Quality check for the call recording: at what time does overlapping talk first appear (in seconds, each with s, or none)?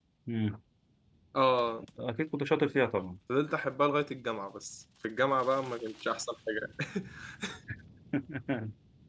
none